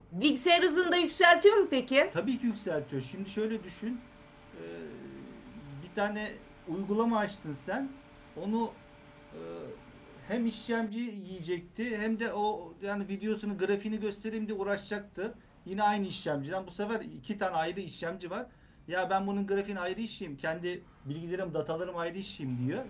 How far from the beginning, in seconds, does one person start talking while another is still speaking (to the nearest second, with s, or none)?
none